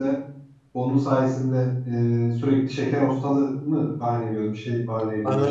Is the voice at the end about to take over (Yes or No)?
Yes